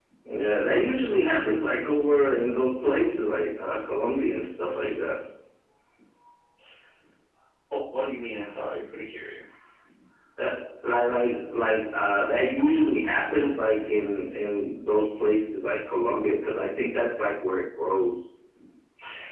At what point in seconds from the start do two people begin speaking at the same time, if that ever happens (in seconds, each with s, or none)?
none